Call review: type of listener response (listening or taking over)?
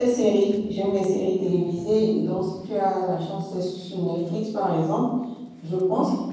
listening